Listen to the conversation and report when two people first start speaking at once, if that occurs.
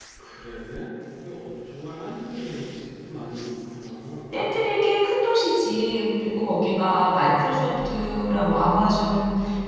none

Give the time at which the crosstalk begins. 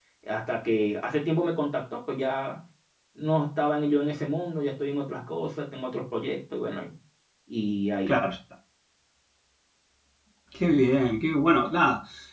none

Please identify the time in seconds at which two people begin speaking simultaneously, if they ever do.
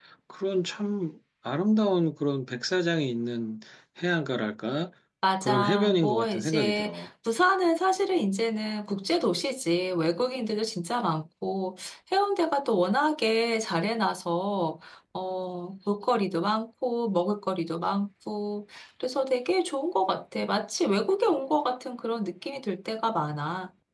5.4 s

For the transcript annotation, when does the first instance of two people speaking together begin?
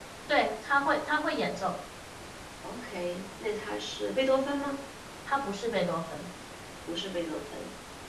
none

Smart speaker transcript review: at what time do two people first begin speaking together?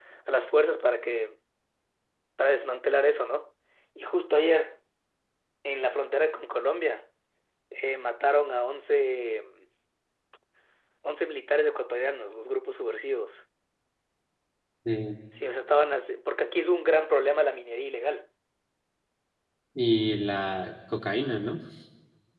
none

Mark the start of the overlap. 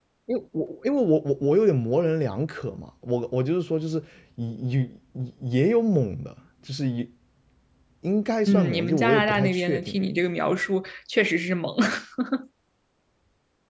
8.5 s

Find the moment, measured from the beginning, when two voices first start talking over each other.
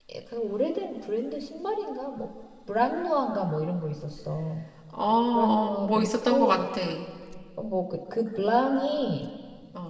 5.3 s

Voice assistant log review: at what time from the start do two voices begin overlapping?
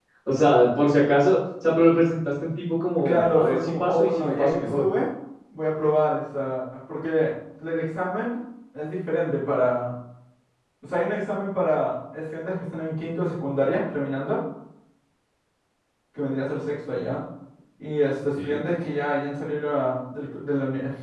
3.0 s

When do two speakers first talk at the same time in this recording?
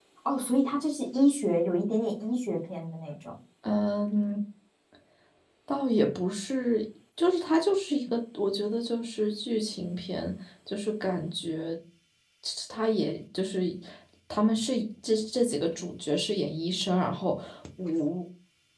none

